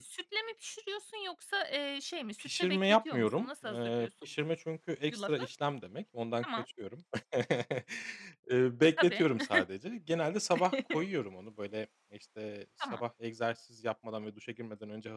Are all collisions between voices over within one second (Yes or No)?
No